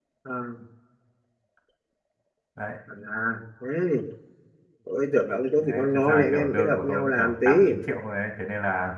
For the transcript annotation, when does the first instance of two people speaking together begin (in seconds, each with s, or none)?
5.6 s